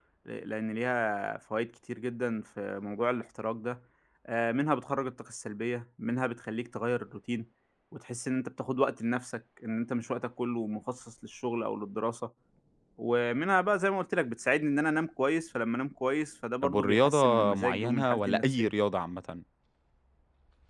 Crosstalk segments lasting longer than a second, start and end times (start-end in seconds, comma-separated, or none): 16.6-18.7